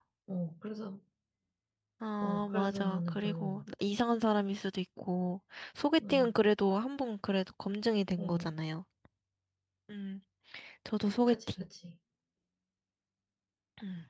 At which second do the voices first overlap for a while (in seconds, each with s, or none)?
2.2 s